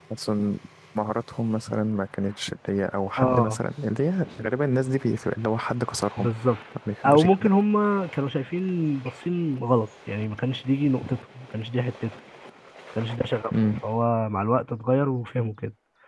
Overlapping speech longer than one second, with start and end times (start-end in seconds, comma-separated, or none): none